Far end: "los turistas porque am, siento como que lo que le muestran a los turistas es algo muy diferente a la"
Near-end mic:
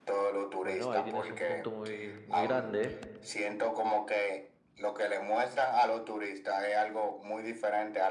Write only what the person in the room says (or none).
Bueno, ahí tienes un punto muy, muy grande.